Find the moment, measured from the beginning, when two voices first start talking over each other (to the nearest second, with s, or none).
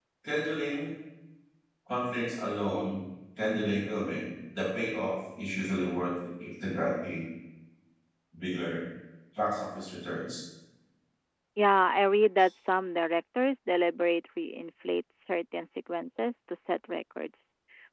none